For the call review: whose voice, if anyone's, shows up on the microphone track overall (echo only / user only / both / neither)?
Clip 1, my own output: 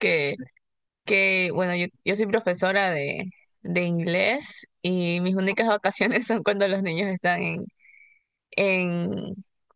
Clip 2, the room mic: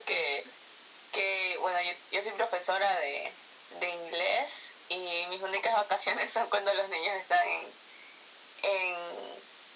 echo only